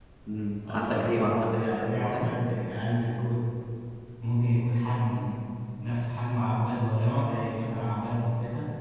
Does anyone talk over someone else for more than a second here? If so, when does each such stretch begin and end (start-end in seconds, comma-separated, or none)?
0.7-2.3